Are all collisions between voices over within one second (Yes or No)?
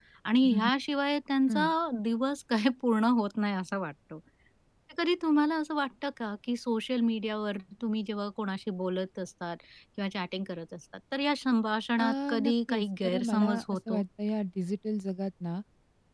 No